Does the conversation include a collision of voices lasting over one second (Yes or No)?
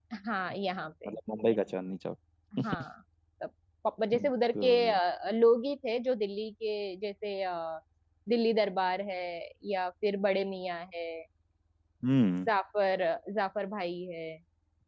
No